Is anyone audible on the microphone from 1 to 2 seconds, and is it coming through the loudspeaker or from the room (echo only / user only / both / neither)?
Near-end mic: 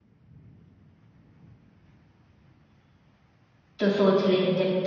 neither